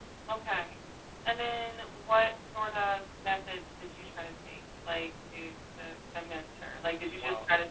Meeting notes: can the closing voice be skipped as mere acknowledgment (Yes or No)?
Yes